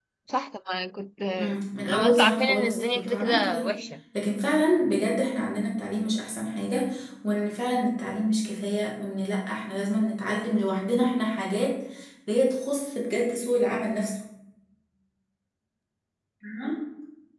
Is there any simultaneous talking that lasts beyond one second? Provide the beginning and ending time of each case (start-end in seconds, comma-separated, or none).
1.9-3.7